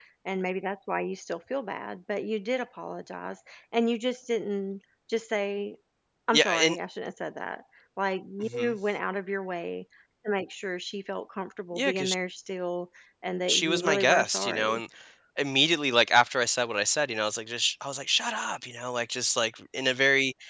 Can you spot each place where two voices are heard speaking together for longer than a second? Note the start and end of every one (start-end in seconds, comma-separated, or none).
13.5-14.8